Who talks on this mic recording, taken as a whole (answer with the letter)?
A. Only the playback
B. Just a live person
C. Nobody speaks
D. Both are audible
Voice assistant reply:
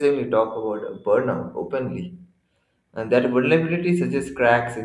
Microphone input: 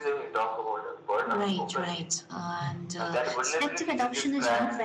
D